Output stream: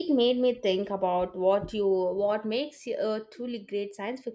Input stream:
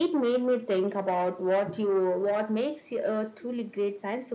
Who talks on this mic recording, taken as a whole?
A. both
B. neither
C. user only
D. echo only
D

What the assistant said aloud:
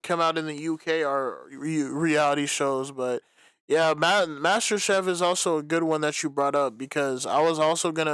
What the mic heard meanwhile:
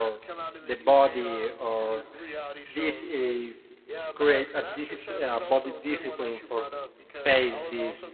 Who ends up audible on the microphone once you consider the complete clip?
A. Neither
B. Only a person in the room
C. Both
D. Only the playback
C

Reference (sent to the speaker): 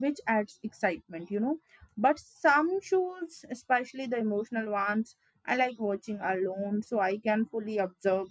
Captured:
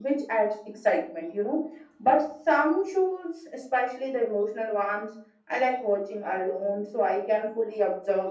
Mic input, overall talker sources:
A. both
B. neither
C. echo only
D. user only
C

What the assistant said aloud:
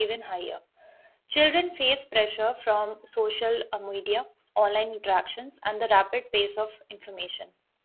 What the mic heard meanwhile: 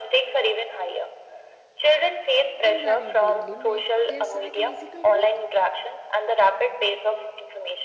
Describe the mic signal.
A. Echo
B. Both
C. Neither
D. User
B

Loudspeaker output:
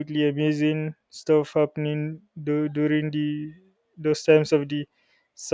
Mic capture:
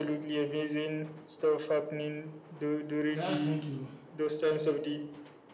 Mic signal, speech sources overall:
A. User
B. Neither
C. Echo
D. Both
D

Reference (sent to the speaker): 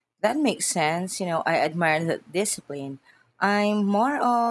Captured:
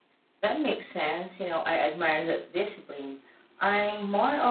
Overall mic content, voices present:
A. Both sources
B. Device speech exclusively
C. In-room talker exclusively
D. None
B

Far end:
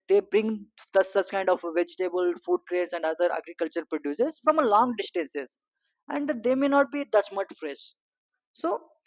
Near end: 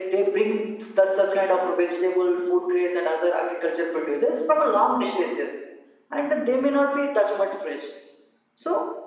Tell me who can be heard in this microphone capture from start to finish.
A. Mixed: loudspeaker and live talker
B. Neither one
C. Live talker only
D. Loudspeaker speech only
D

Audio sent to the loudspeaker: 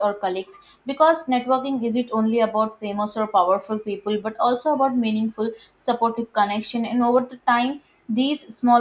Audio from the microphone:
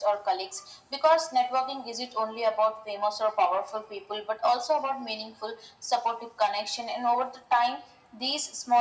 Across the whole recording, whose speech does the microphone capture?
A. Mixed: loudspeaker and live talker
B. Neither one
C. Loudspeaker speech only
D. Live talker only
C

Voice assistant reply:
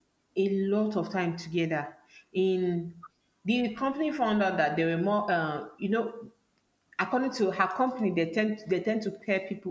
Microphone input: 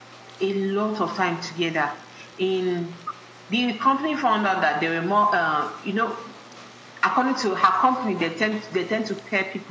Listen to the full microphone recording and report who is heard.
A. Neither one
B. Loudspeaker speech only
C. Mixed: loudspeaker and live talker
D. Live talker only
B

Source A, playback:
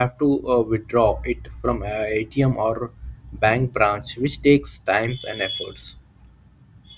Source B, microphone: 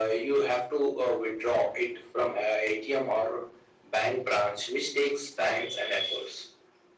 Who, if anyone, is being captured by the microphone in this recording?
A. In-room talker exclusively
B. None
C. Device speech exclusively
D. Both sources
C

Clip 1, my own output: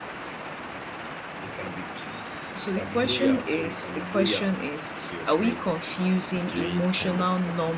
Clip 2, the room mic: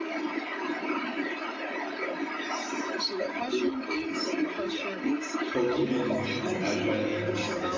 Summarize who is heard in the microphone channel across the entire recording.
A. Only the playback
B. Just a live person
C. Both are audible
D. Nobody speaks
C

